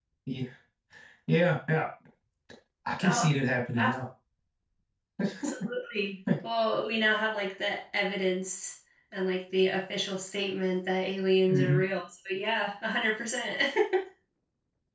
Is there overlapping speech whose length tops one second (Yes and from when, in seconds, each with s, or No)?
No